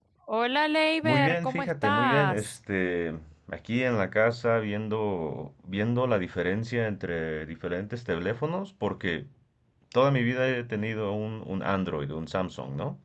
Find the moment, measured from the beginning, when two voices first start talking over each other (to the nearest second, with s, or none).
1 s